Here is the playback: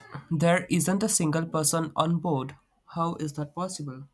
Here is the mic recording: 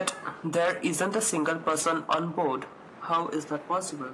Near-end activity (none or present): none